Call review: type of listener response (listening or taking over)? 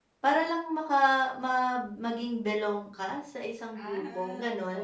taking over